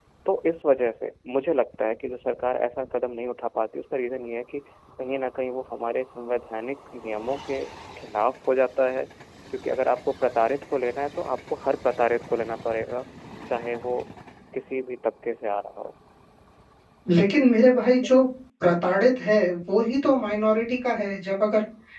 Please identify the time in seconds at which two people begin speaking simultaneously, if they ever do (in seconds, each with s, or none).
none